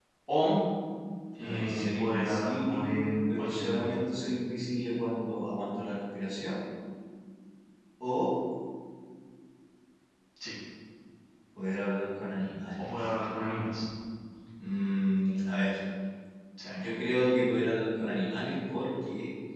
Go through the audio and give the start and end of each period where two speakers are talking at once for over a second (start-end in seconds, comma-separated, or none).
1.4-3.9